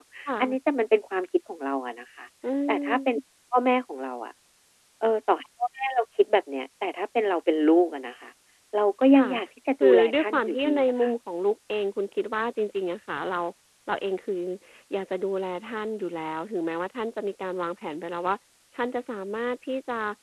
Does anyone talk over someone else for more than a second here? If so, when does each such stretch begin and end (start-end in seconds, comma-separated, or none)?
9.8-11.1